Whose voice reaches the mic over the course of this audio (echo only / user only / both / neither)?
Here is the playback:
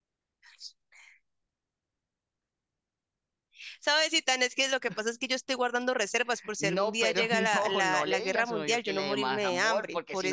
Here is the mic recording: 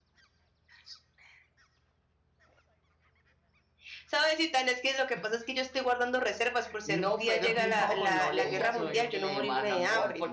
both